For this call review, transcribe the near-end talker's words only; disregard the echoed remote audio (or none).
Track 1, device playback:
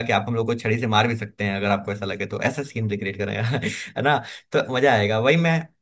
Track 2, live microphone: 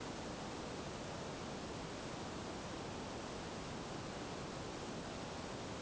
none